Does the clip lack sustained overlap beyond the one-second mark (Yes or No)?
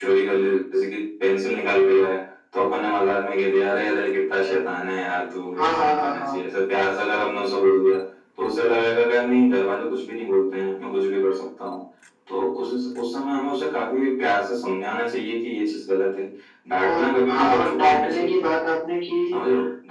No